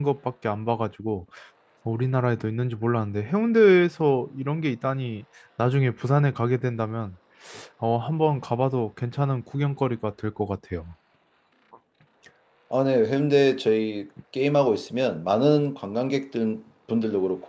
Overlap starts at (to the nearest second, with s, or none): none